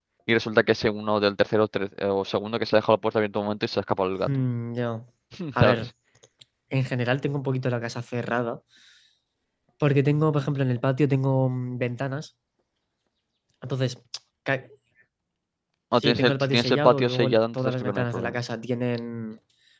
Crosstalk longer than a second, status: present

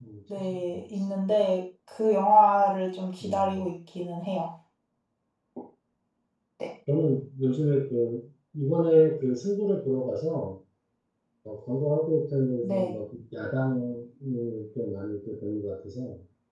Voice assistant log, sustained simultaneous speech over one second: none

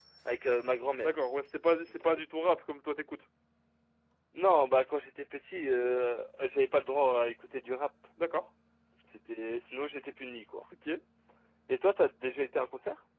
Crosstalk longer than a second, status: none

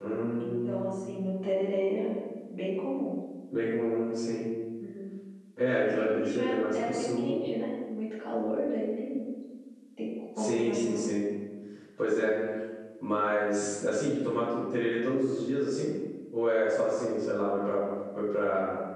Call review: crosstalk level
present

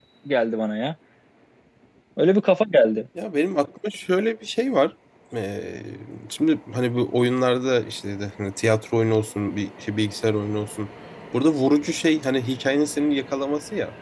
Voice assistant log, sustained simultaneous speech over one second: none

